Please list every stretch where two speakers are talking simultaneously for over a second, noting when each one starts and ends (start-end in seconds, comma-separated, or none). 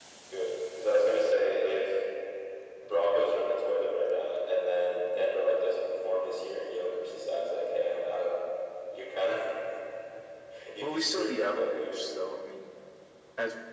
10.8-12.1